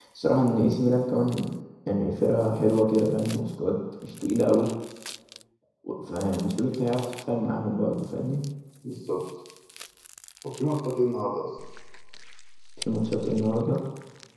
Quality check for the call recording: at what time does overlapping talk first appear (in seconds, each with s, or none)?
none